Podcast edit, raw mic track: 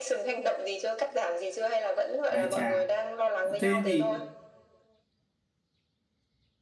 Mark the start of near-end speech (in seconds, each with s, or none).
2.3 s